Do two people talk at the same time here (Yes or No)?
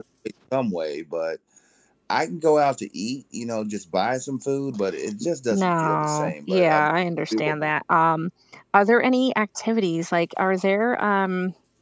Yes